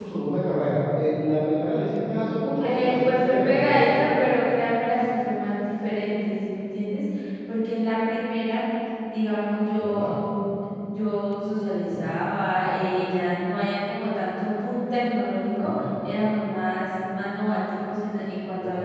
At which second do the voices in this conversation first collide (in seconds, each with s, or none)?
2.6 s